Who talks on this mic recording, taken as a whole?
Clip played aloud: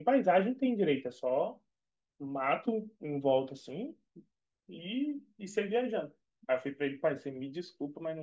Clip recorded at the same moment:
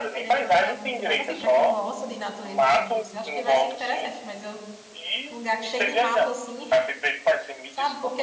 both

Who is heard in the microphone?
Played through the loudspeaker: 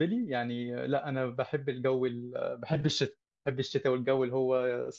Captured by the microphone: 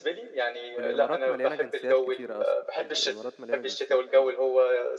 both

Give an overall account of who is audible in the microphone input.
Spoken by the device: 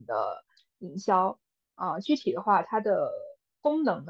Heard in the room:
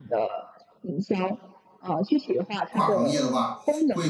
both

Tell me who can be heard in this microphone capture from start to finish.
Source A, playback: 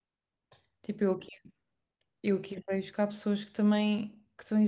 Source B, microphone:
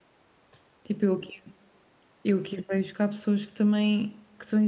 echo only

